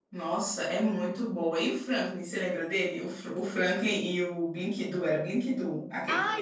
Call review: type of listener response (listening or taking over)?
taking over